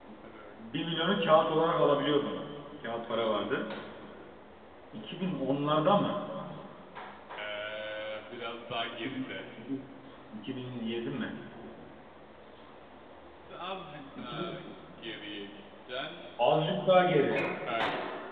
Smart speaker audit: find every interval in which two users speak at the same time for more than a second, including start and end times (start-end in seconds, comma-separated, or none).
none